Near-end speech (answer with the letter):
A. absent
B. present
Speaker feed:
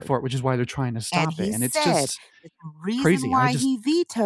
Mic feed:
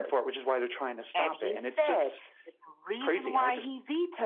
A